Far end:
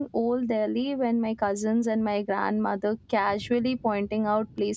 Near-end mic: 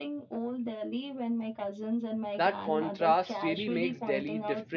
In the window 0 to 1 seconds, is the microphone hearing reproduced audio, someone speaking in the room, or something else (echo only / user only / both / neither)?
echo only